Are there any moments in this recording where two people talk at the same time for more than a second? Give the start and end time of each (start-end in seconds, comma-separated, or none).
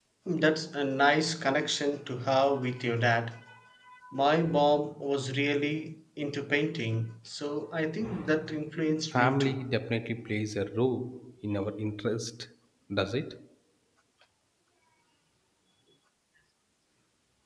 none